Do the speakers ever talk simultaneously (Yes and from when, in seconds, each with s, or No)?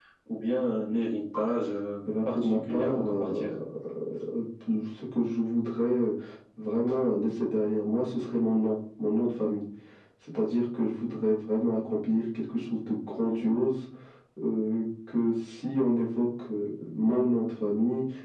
Yes, from 2.3 s